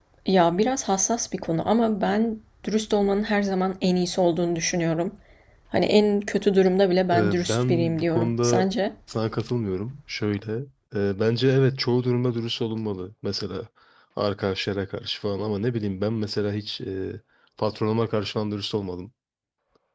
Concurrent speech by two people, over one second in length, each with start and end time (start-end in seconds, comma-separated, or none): 7.1-8.7